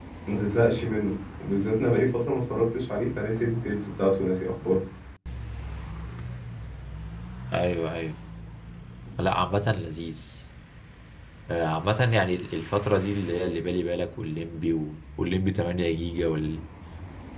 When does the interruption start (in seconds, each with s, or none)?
none